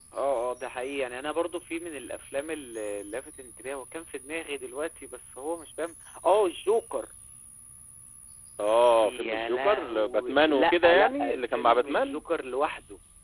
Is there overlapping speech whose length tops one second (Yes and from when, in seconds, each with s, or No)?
Yes, from 9.0 s